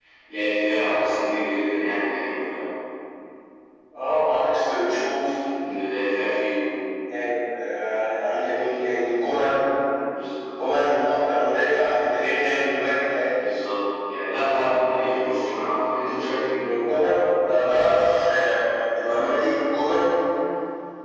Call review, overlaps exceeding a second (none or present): none